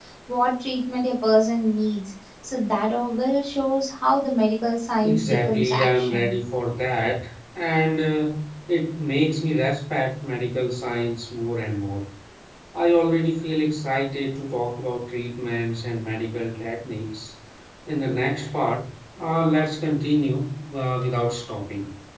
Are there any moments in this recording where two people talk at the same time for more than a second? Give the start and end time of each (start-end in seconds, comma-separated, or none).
5.0-6.3